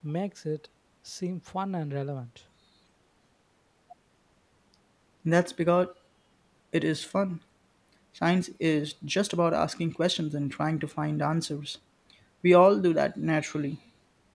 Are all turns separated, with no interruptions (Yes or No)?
Yes